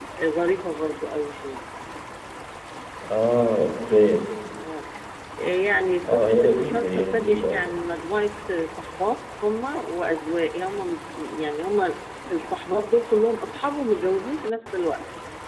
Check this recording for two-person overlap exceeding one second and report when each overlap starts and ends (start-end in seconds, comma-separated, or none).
6.0-7.7